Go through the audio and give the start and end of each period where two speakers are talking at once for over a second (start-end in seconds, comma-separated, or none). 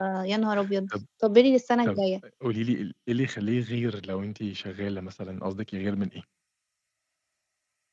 none